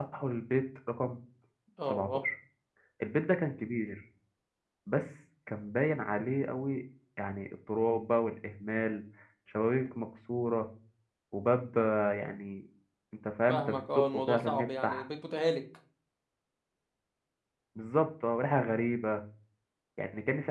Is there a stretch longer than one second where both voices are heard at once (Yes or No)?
Yes